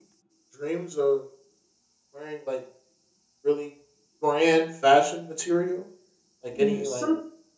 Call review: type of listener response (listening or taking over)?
taking over